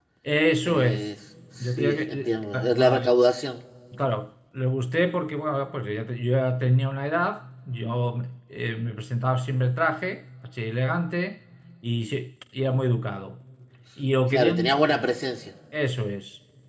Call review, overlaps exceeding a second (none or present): present